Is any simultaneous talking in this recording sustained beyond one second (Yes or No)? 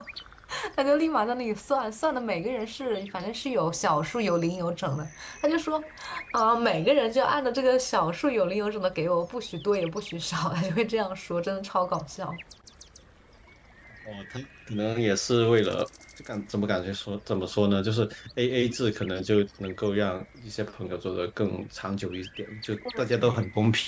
No